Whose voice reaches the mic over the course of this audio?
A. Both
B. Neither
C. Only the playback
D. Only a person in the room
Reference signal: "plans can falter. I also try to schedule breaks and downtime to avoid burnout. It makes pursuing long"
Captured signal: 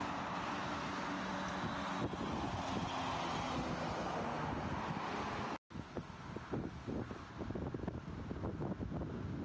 B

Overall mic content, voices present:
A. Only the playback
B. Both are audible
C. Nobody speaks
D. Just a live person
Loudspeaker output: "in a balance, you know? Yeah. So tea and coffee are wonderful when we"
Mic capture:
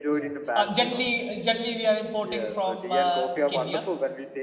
B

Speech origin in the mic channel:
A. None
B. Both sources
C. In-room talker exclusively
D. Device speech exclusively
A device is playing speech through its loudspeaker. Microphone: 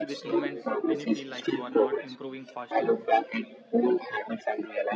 B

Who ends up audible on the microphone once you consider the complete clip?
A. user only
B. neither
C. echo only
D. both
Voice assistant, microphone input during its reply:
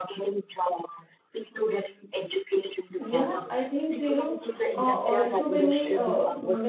D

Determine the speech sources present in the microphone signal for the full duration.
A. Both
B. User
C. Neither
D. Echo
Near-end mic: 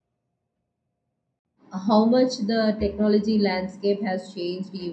B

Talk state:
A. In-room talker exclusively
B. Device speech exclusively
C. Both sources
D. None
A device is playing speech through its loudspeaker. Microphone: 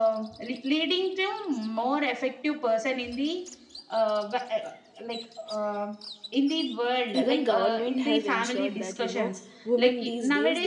C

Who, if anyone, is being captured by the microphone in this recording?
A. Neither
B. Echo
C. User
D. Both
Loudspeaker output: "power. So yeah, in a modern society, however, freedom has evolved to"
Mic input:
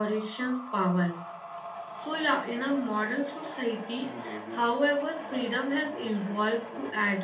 D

